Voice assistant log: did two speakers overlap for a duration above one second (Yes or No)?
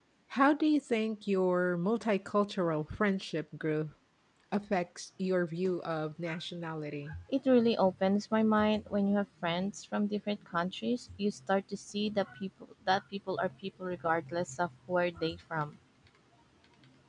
No